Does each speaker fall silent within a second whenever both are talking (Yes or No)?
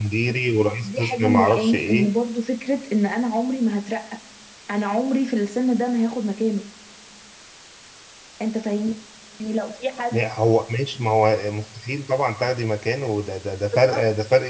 No